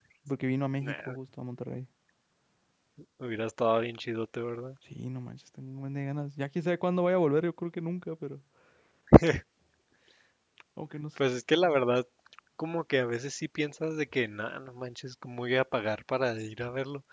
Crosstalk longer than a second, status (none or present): none